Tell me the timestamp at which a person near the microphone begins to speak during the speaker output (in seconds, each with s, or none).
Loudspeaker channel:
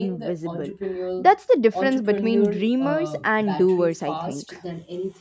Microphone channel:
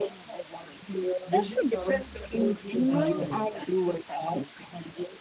1.3 s